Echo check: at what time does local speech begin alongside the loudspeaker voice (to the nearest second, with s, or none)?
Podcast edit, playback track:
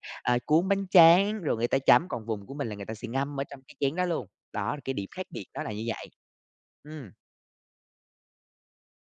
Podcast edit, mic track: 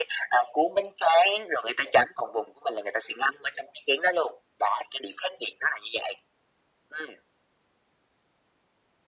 none